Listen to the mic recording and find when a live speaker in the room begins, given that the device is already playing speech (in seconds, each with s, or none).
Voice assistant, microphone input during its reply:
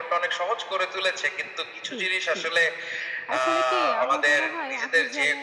1.9 s